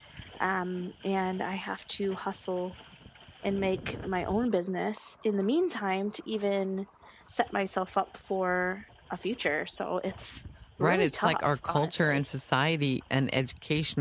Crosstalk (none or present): present